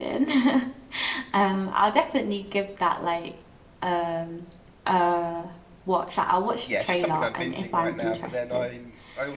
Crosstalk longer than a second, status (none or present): present